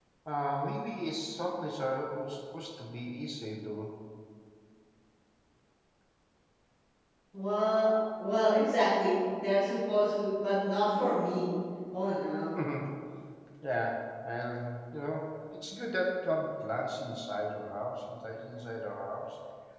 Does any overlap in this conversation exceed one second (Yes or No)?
No